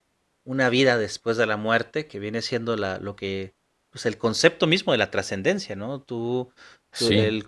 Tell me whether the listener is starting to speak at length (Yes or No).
No